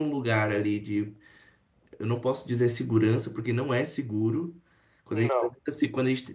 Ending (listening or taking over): listening